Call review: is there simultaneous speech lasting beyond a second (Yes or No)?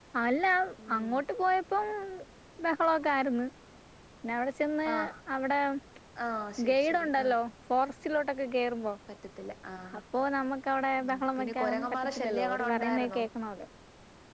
Yes